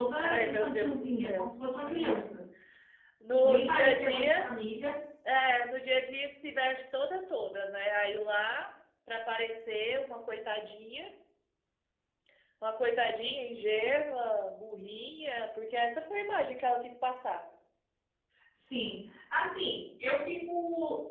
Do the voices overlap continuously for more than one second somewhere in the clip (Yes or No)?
Yes